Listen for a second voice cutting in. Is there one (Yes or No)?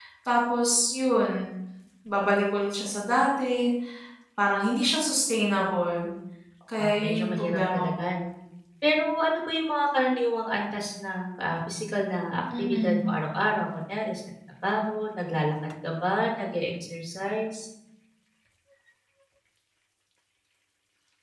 Yes